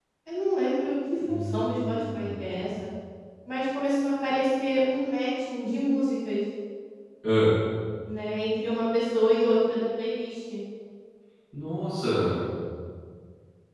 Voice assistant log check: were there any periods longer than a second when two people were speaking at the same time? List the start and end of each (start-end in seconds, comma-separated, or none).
1.3-2.5